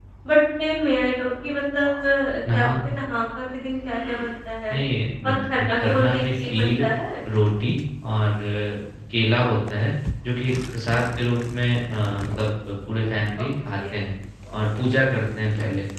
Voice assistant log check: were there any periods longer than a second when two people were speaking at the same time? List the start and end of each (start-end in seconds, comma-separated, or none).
5.2-6.9